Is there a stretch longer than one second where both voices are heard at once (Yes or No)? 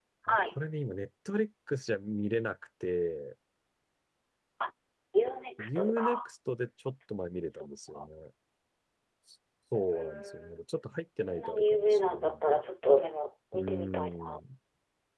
Yes